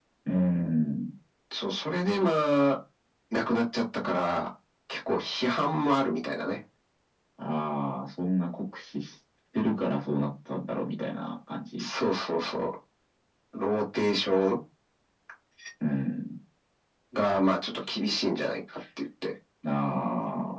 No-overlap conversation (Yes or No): Yes